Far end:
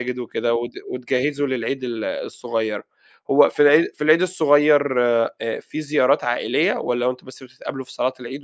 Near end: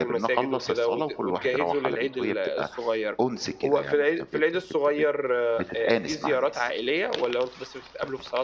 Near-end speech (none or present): present